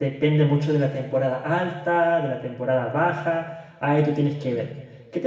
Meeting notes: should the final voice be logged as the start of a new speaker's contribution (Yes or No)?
No